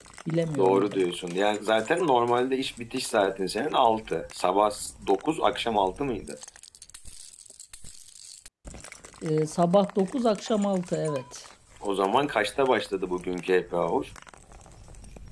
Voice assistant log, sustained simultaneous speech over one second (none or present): none